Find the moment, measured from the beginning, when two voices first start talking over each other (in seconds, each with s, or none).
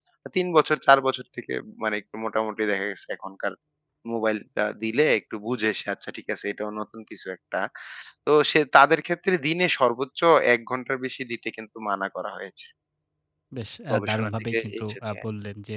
13.9 s